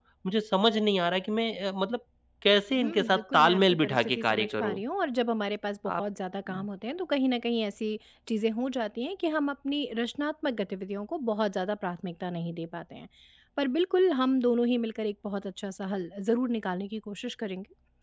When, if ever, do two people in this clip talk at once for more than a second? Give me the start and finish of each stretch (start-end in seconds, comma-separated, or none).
2.8-4.8